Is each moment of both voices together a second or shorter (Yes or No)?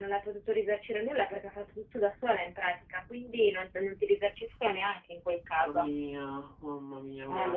Yes